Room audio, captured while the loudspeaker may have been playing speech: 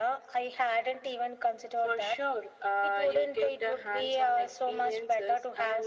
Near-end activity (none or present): none